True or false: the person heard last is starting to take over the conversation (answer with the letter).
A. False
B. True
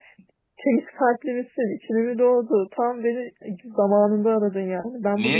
A